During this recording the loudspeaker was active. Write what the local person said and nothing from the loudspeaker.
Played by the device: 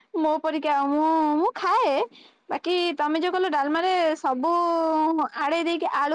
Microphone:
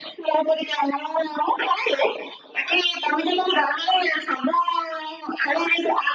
none

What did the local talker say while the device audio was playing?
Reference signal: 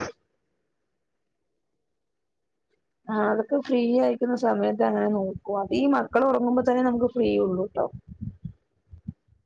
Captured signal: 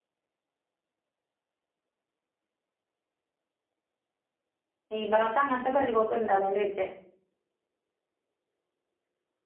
ഈ ഭാഗത്ത് അങ്ങന് ത്തെ പതിവൊക്കെ ണ്ട് താ ചോയ്ച്ചേ

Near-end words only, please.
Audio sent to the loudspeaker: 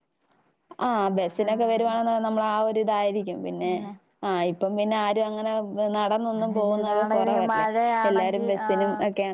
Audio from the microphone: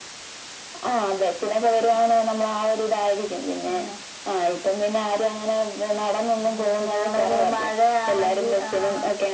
none

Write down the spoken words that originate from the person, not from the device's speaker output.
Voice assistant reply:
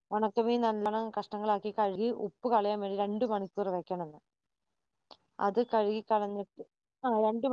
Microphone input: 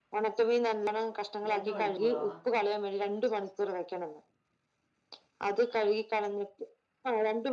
രണ്ട് മണിക്കൂറോ

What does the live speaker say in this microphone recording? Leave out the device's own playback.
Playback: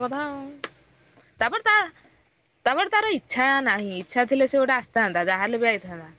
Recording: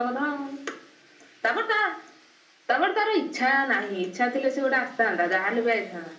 none

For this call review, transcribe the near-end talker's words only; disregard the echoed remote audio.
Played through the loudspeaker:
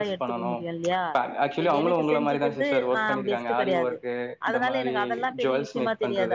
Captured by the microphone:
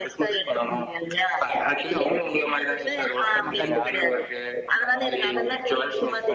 ஆமா கண்டிப்பா

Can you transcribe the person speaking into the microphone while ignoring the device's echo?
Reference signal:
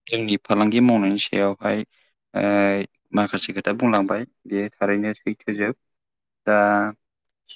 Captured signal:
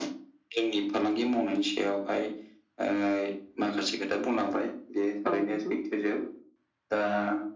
औ नोंथां

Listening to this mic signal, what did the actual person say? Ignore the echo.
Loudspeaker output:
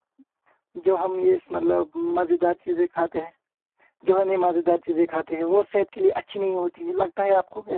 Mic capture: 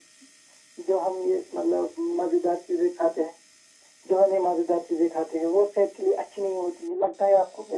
none

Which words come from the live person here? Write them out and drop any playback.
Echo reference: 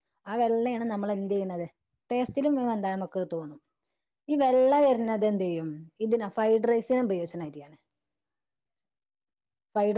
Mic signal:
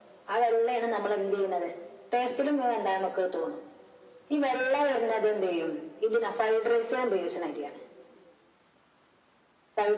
none

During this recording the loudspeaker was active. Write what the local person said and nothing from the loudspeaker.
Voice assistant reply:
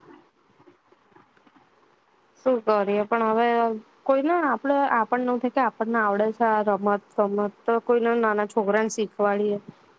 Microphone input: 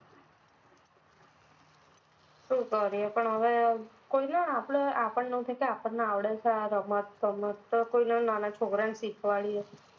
none

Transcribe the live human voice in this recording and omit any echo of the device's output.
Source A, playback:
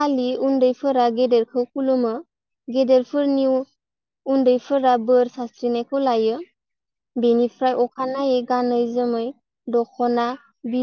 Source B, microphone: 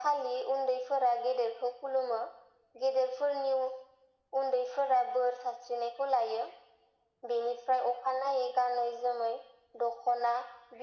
none

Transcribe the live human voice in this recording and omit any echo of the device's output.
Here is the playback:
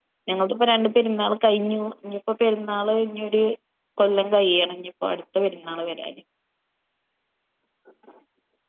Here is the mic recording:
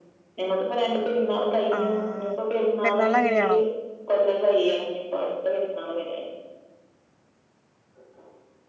ആഹ് പെരുന്നാൾ അങ്ങനെയാണോ?

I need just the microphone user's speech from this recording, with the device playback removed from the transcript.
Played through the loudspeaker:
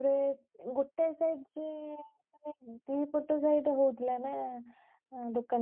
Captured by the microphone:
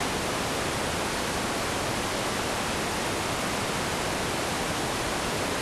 none

